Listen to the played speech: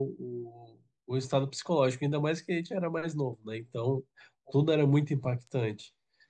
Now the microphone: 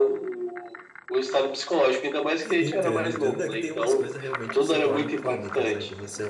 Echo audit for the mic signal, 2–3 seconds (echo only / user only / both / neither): both